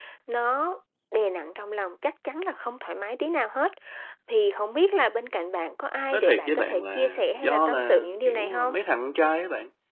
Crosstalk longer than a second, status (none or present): present